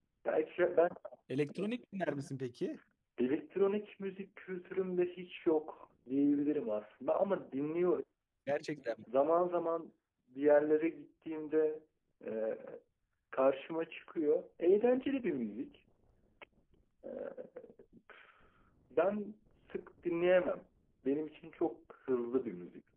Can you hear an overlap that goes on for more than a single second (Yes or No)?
No